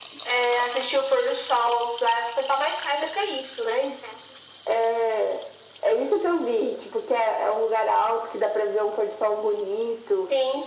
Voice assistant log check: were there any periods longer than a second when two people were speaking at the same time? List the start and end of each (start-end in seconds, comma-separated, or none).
none